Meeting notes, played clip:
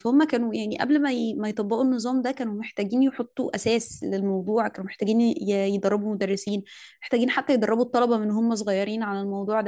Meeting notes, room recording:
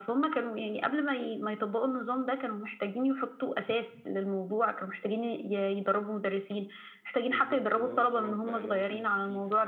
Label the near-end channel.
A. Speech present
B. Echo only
A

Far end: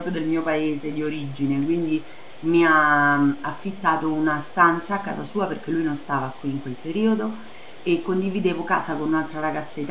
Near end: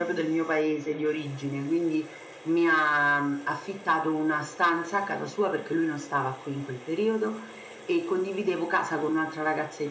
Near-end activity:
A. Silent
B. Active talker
A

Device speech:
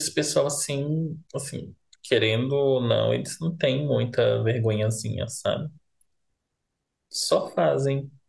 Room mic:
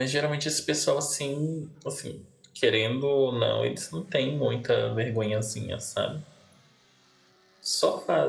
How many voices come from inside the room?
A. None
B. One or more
A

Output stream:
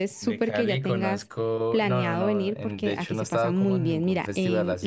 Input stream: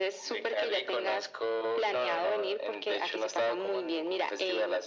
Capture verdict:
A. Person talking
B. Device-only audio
B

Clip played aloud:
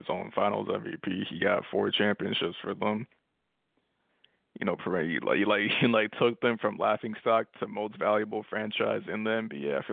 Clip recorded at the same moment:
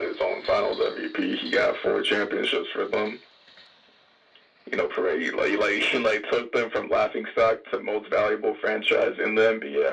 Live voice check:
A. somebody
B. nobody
B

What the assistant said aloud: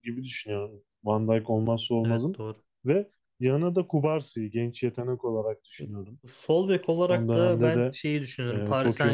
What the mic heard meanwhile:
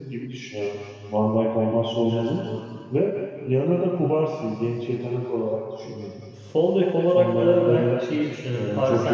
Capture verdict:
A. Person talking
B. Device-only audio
B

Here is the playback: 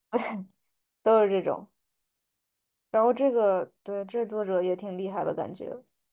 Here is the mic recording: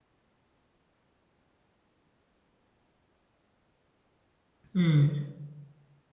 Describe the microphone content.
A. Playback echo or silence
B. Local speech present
B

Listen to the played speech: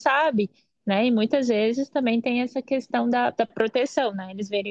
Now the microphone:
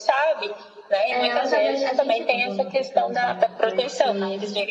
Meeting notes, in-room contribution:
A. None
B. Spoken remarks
B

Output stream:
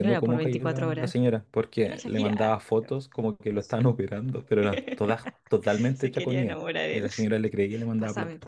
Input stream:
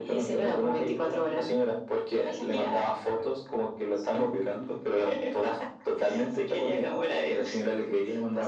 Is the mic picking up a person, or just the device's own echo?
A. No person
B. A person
A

